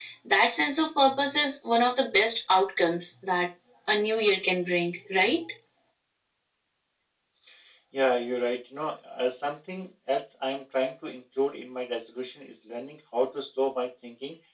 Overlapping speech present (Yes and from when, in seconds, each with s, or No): No